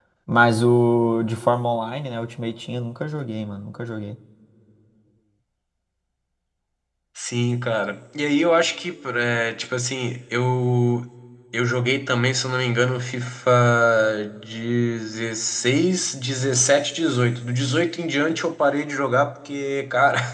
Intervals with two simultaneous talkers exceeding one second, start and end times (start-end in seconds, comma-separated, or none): none